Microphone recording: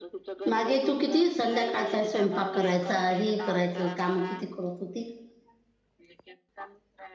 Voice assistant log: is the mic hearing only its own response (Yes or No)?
No